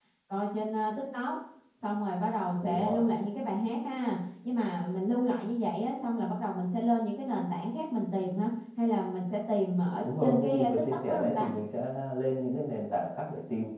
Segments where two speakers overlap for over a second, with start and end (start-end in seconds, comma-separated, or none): 10.0-11.5